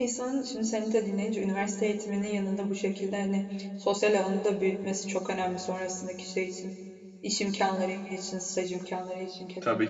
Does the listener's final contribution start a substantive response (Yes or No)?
Yes